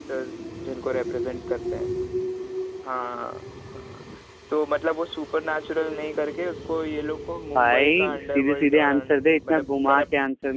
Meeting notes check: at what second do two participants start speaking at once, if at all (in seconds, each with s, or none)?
7.5 s